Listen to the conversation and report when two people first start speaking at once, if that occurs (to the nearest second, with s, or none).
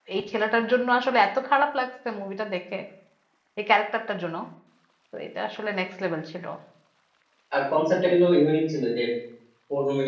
none